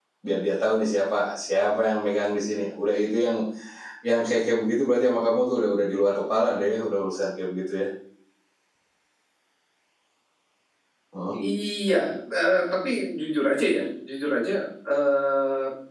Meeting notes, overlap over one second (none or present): none